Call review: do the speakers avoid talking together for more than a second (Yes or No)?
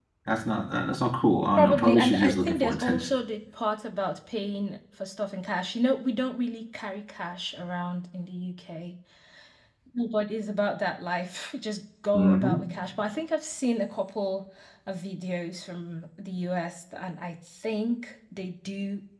No